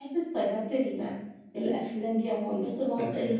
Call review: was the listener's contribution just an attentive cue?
Yes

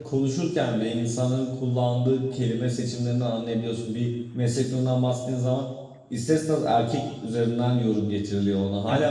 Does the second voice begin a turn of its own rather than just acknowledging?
No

